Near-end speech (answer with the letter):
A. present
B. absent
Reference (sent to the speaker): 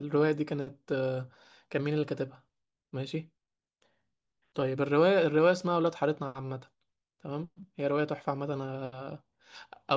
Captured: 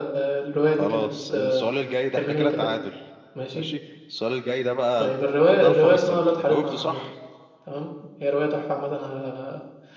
A